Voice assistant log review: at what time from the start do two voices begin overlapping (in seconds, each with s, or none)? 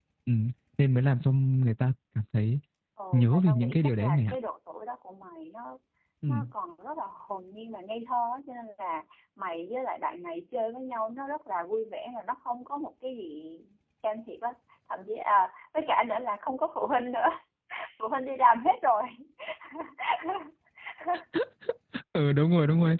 3.1 s